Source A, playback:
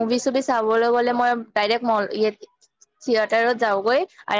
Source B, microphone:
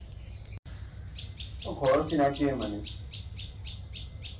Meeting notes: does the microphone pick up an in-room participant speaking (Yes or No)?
Yes